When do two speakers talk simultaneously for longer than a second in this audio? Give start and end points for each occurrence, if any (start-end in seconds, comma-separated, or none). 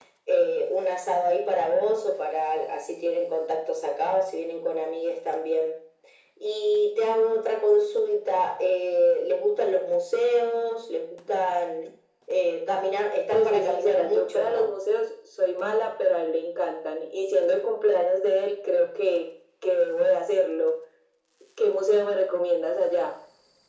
13.3-14.7